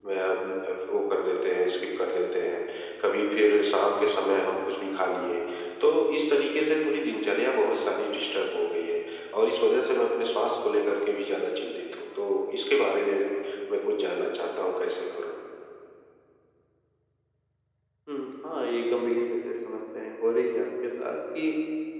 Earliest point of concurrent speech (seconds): none

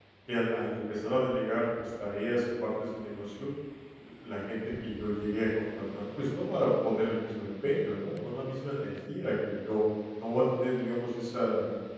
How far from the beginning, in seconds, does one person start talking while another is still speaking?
none

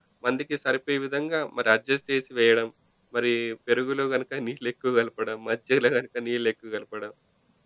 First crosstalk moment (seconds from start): none

